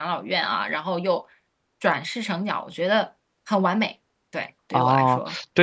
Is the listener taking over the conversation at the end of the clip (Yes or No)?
Yes